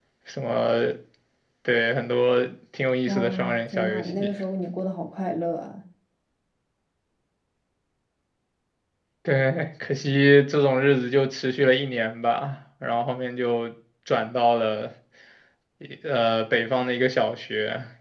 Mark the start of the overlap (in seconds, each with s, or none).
3.1 s